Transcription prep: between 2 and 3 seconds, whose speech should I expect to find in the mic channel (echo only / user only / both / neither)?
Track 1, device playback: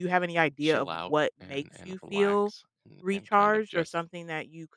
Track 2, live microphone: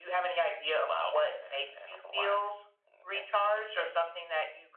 echo only